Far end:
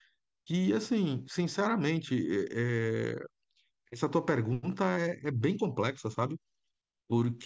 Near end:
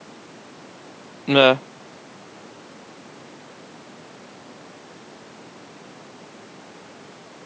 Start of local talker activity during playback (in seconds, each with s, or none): 1.3 s